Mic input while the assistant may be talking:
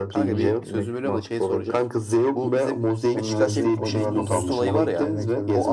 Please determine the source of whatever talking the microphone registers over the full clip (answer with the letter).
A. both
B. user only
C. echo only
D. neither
A